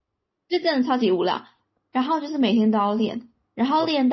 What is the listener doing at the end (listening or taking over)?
listening